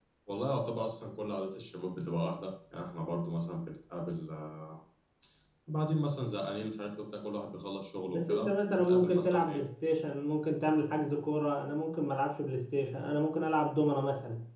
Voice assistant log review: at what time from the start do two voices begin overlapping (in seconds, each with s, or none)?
8.1 s